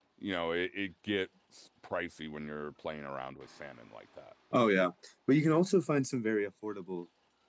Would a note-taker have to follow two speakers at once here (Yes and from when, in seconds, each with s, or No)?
No